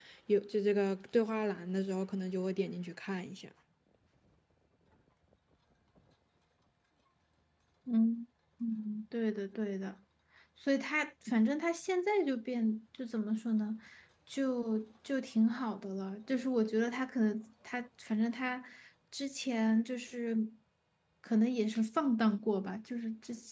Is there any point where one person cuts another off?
No

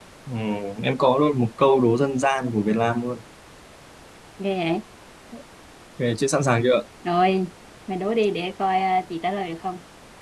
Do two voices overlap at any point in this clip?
No

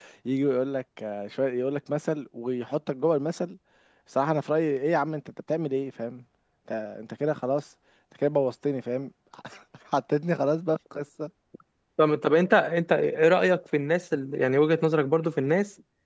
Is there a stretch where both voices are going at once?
No

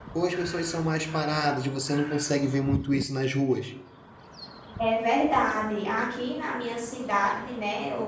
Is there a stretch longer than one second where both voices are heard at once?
No

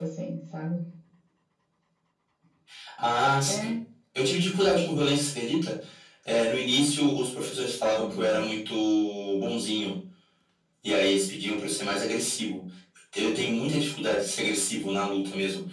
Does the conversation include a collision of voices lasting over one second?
No

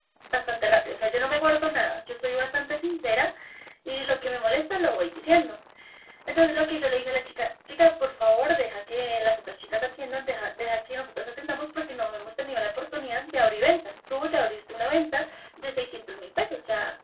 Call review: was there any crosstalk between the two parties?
No

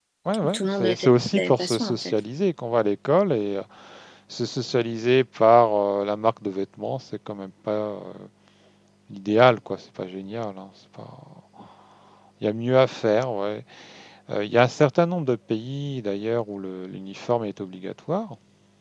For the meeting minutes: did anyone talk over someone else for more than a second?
Yes, from 0.5 s

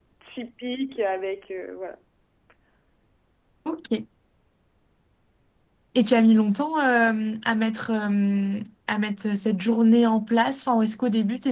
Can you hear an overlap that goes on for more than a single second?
No

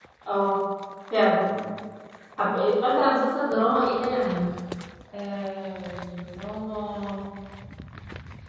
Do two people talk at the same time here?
No

